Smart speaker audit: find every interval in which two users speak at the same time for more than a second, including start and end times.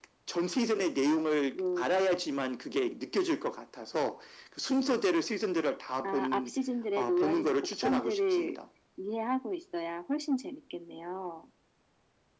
7.0-8.6

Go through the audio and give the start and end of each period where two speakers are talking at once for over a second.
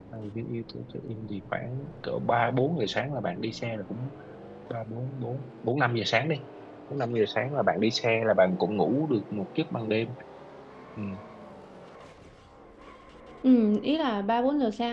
none

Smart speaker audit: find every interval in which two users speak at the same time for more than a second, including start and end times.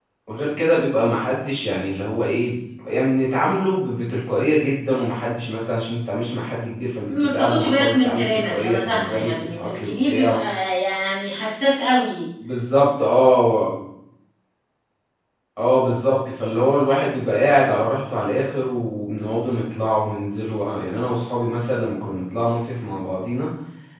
7.0-10.4

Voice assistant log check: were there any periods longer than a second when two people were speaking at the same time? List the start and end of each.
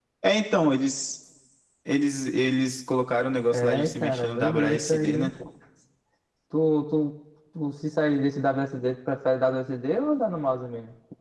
3.5-5.3

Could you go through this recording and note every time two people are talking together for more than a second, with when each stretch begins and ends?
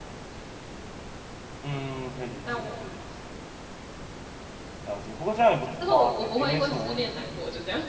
5.8-7.3

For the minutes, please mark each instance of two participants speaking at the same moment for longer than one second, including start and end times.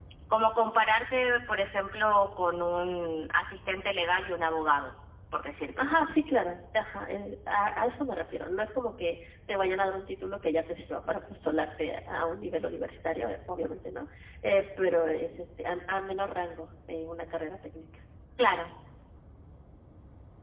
none

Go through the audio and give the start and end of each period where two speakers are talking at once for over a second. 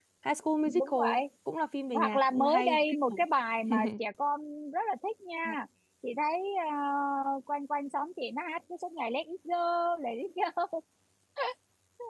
1.9-3.2

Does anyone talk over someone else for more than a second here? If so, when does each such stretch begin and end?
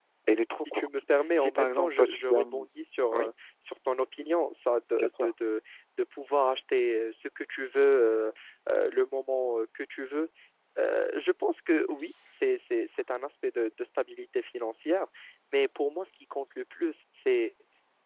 1.4-2.7

